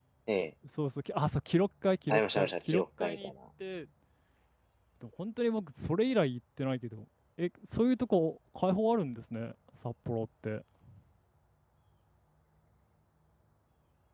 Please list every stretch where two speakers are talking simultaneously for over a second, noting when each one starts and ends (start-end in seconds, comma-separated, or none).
2.1-3.3